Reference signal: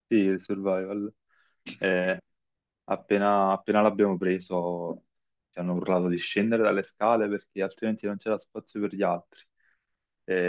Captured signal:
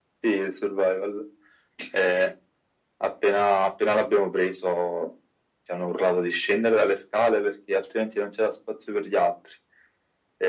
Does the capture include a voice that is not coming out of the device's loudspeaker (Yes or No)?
No